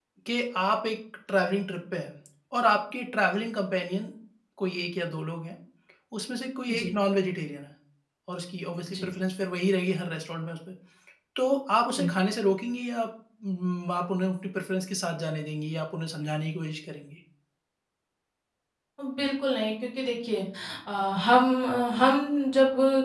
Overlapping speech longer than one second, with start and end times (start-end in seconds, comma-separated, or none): none